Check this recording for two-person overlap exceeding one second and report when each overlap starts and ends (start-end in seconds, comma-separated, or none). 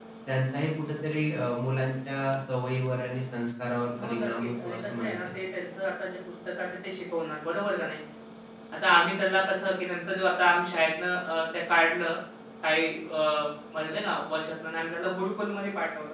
4.0-5.2